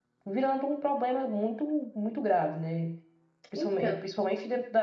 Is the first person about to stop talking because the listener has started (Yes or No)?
No